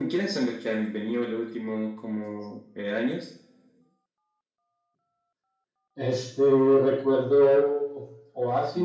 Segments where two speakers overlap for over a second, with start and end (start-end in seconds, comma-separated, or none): none